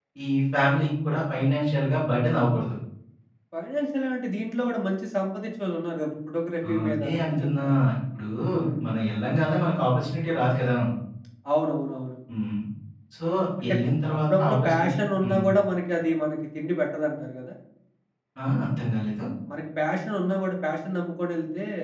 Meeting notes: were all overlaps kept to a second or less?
No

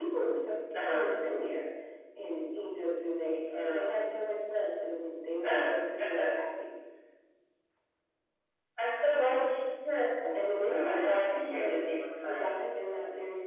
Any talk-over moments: Yes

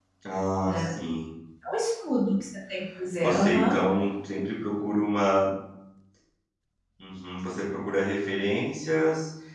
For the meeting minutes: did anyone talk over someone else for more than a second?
No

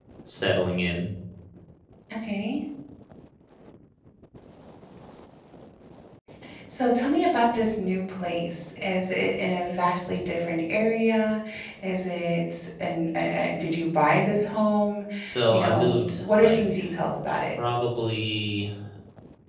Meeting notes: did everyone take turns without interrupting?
No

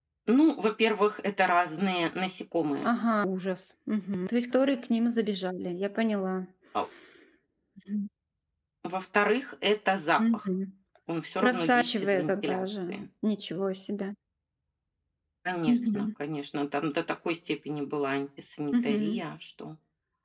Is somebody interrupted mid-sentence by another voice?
Yes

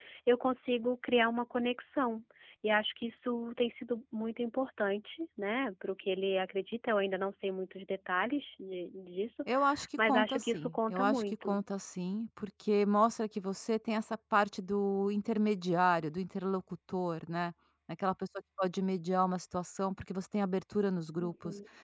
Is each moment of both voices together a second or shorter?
No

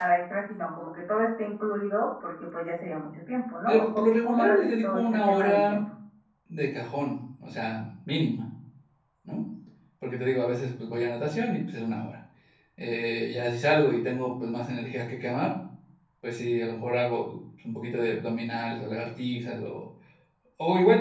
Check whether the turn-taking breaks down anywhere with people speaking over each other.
Yes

